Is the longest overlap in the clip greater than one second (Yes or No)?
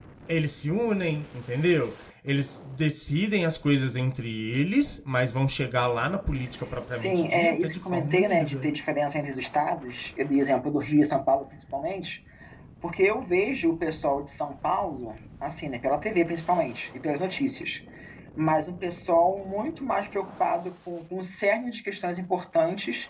Yes